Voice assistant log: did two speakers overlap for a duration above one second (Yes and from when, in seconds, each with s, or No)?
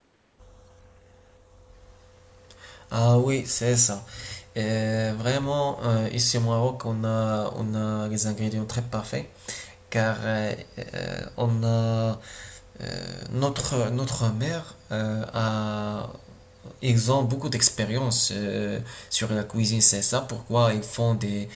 No